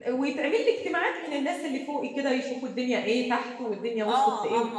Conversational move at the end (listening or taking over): taking over